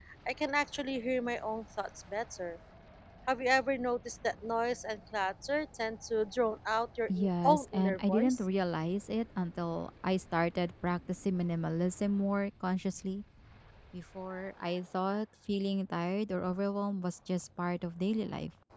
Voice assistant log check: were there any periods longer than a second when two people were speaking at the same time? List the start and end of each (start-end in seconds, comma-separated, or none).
7.1-8.4